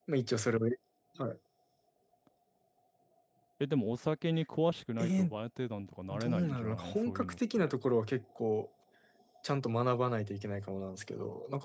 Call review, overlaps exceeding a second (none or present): present